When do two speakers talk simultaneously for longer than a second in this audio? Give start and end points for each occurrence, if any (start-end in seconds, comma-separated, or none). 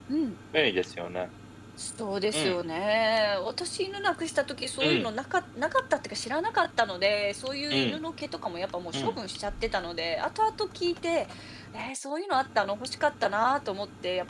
none